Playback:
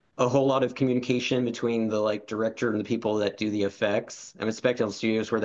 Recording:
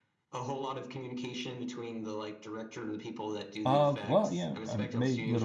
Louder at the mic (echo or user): user